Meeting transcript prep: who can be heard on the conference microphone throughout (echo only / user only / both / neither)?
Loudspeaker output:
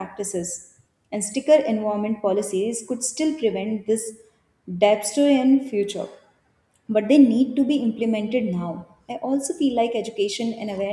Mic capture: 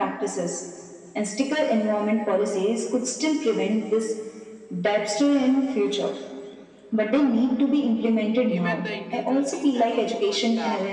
both